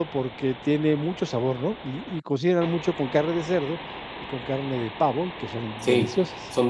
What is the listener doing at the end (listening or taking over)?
taking over